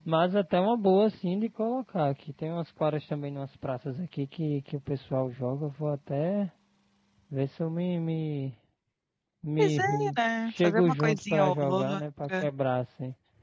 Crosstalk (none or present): present